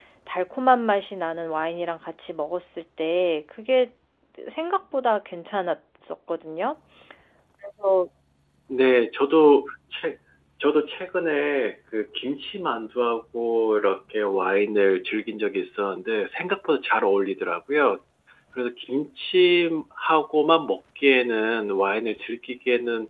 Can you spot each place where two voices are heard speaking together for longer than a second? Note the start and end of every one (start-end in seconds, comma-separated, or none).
none